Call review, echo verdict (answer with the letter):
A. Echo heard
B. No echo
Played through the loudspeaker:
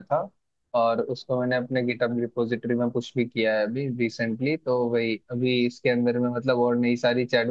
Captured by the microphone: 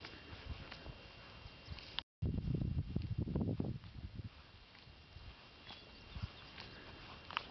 B